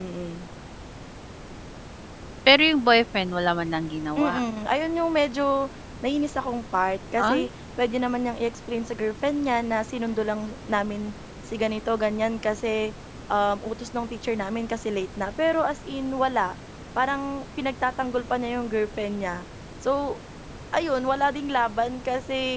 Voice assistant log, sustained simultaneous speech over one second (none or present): none